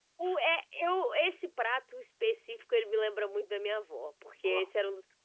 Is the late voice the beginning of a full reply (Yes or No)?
No